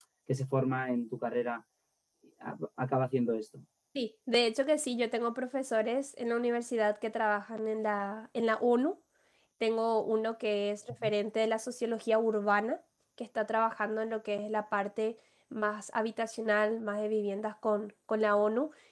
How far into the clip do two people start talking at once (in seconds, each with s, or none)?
none